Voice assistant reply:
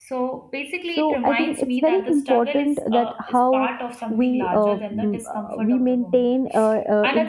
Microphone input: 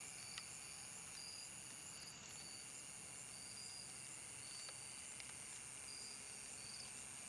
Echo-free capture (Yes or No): Yes